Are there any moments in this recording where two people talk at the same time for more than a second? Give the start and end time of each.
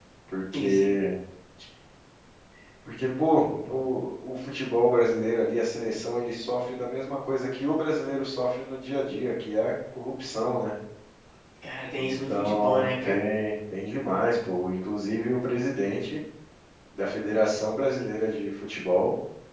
12.0-13.2

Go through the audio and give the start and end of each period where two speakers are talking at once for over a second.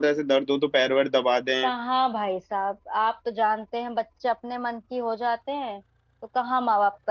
none

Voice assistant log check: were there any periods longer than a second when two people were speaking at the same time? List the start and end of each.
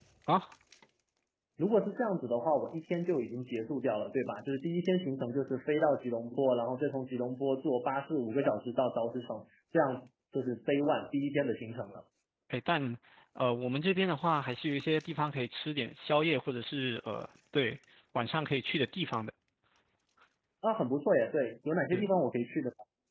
none

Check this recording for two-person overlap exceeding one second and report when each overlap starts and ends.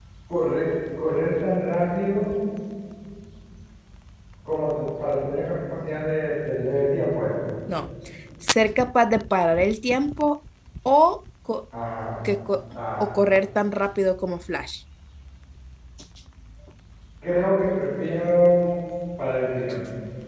none

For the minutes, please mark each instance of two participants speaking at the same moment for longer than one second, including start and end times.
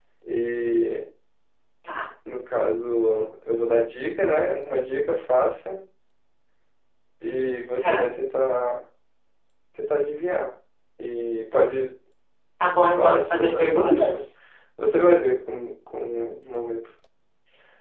13.0-14.2

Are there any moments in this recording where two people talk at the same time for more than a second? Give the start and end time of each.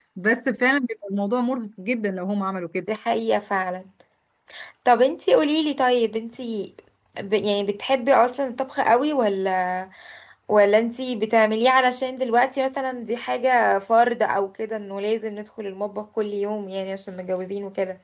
none

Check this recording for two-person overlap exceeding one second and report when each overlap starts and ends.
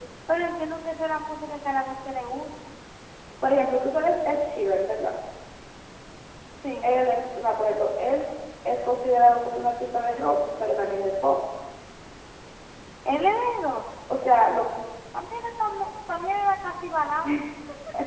none

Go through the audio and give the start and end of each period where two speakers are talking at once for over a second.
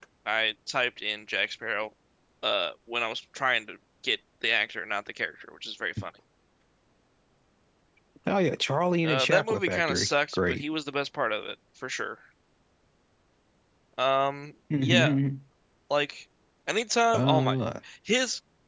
9.0-10.6

